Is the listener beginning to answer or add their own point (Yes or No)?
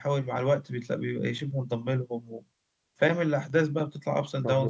Yes